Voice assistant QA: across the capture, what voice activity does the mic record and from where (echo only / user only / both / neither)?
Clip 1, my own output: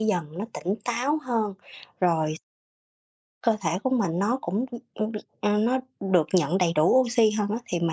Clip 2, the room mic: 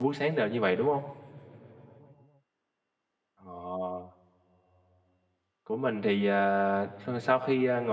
user only